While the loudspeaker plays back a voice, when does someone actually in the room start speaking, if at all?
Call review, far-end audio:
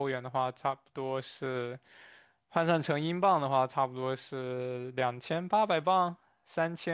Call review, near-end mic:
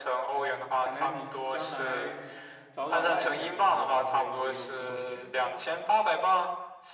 0.3 s

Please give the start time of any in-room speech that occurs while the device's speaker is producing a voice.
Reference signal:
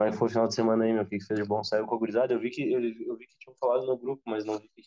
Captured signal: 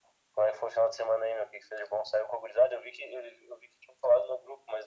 none

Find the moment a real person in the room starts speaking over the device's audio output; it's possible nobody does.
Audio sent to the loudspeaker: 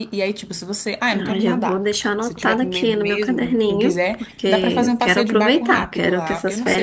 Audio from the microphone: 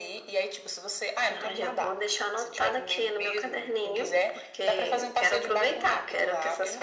none

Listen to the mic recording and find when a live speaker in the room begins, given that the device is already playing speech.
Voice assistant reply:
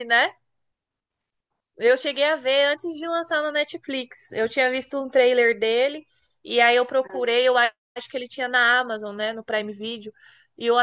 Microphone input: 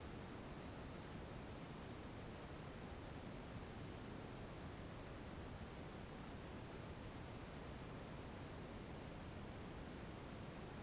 none

